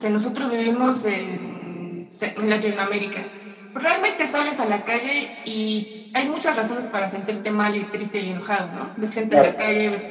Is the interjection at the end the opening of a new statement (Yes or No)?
No